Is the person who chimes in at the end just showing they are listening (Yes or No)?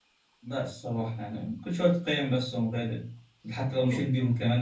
Yes